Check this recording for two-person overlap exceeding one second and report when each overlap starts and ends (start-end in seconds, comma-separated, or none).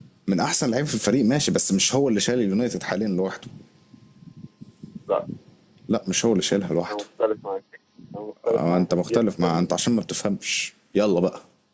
8.5-9.7